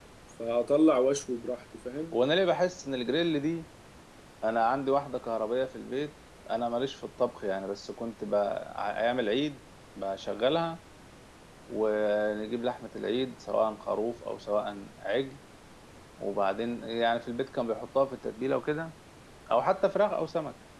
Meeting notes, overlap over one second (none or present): none